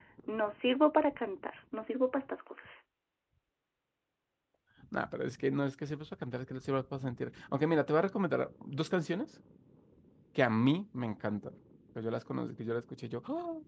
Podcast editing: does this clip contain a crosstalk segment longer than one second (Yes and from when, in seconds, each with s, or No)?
No